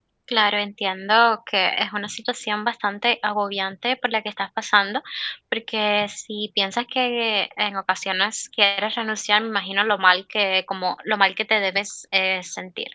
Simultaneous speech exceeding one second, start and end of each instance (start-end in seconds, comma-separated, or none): none